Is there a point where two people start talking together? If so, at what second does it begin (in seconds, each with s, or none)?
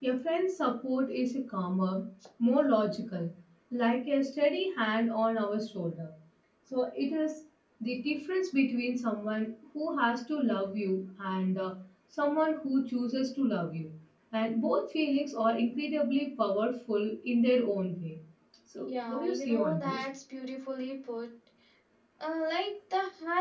18.8 s